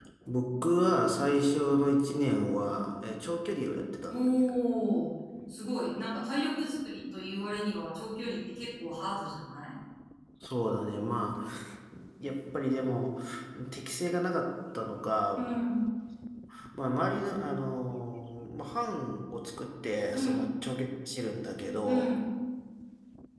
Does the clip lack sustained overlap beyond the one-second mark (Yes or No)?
Yes